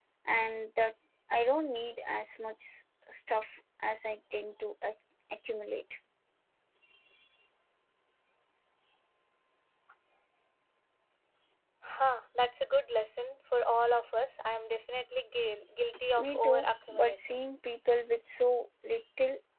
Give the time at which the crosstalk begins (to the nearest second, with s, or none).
16 s